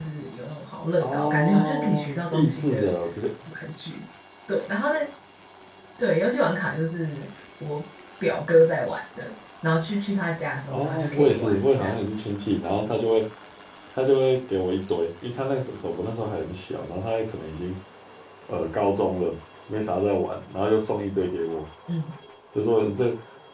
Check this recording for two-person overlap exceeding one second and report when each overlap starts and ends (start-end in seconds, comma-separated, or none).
1.0-2.9, 10.7-11.9